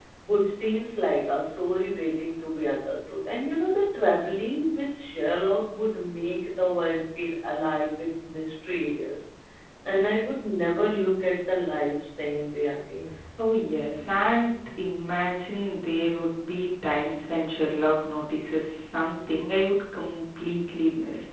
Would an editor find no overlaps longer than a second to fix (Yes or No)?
Yes